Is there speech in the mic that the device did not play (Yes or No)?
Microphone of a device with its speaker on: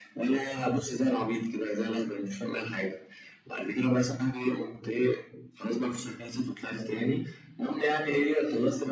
No